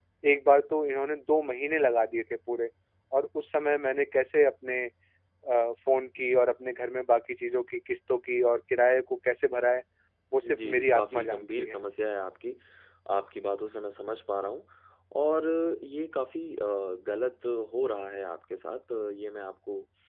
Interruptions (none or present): present